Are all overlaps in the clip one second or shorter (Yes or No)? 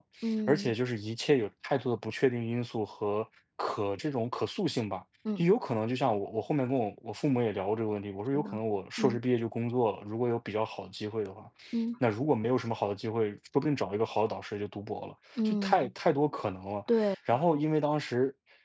Yes